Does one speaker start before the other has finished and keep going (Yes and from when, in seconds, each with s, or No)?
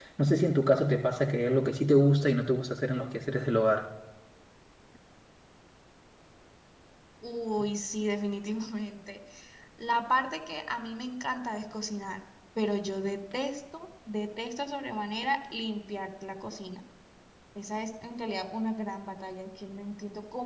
No